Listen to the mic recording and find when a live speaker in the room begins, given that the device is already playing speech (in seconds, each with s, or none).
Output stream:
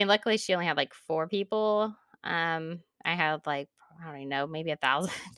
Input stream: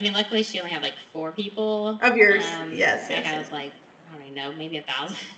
2.0 s